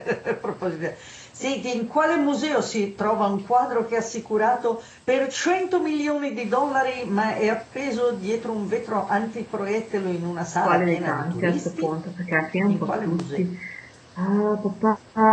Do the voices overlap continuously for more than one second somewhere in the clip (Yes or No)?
Yes